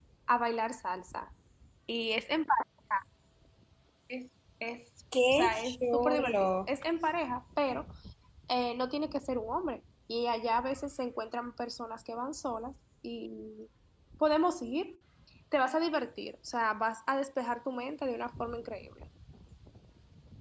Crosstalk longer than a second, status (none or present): present